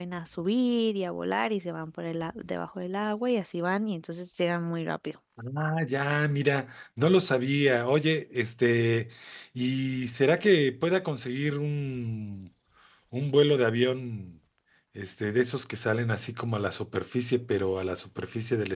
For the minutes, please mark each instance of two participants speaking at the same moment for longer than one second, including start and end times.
none

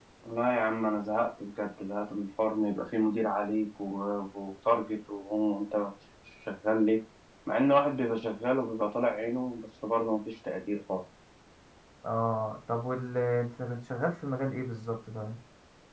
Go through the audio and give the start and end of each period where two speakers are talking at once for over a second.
none

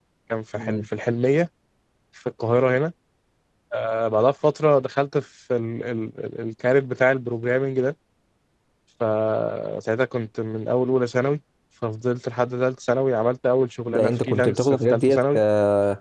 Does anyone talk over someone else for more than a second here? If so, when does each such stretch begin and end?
13.9-15.2

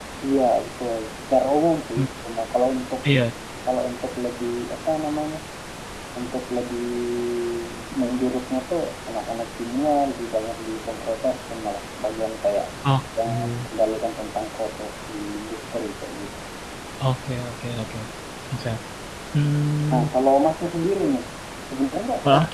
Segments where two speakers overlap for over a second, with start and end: none

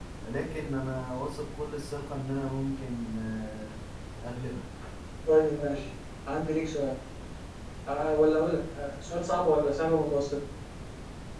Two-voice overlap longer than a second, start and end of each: none

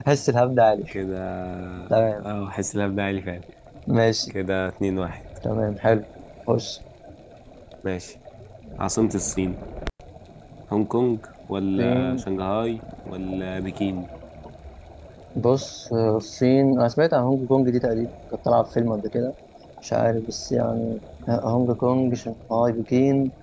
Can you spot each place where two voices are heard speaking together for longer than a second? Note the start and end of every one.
none

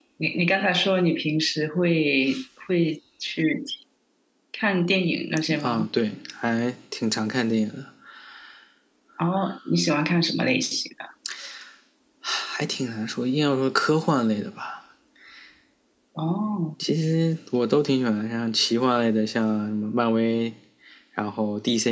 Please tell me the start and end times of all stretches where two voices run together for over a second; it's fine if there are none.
none

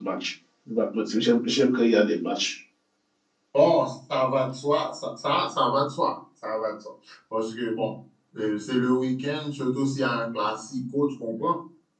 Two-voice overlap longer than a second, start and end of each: none

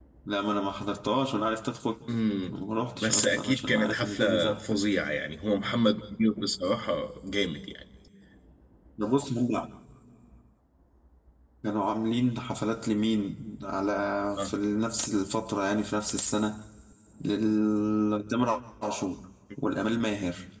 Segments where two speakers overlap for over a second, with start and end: 3.0-4.6

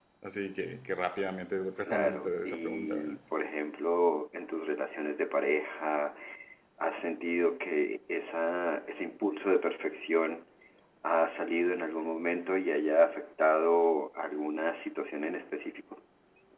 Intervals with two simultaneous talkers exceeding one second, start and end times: 1.8-3.1

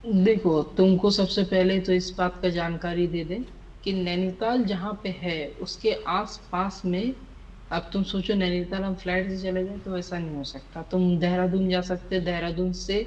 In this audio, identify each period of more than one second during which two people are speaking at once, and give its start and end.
none

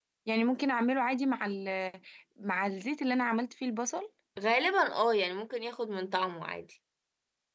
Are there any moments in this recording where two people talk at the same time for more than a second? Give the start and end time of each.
none

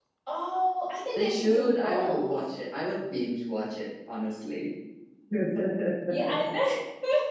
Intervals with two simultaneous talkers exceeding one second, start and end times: 1.2-2.4

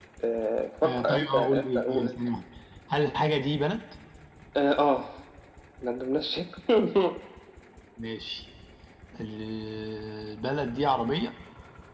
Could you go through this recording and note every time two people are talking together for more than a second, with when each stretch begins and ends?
0.8-2.4

